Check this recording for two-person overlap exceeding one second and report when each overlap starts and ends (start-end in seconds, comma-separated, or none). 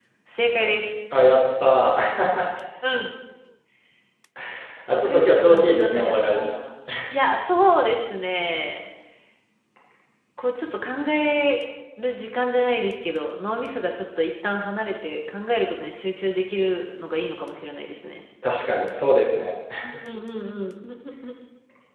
4.9-6.5